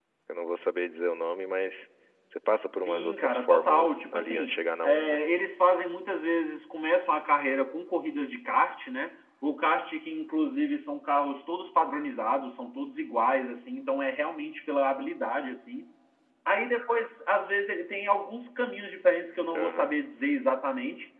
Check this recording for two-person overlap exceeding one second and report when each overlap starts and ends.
2.9-5.2

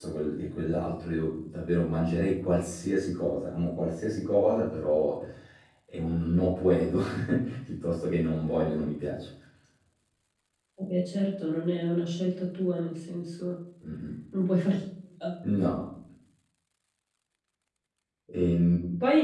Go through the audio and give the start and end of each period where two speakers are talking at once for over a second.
none

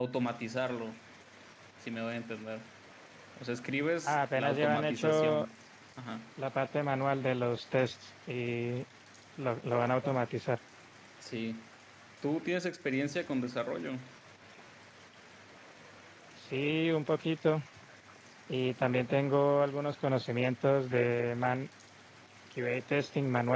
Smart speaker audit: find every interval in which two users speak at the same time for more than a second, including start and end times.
4.0-5.4

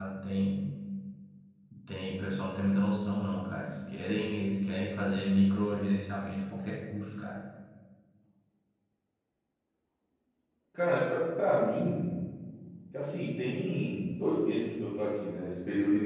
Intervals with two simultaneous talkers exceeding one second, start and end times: none

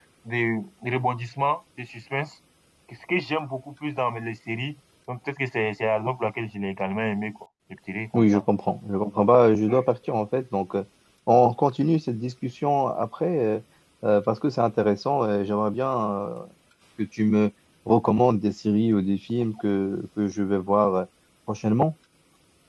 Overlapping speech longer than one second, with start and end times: none

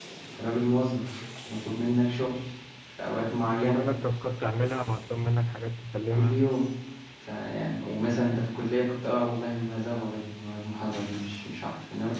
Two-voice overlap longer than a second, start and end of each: none

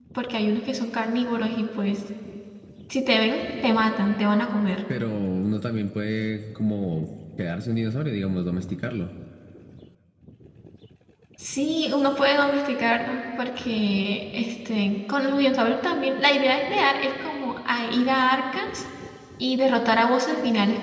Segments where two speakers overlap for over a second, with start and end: none

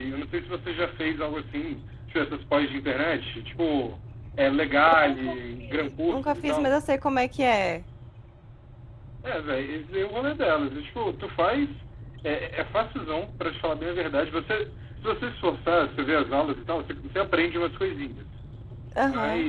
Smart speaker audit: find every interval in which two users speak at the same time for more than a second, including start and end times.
4.9-6.7

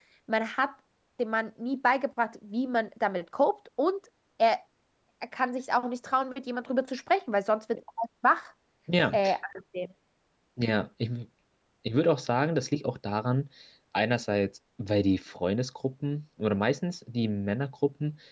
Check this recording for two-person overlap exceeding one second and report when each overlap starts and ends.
none

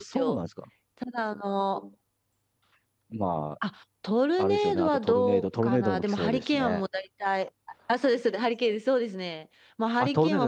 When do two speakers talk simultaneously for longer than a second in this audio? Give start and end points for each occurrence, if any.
4.4-6.8

